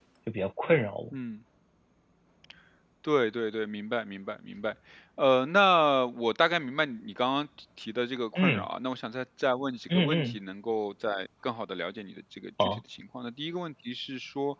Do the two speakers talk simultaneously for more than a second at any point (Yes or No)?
No